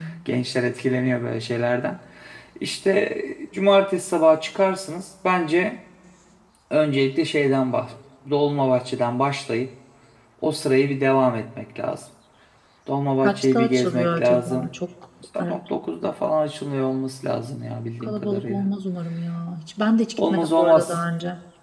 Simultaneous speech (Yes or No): Yes